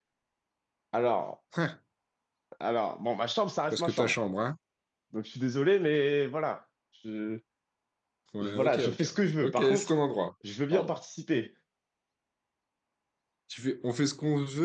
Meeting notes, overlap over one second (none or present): present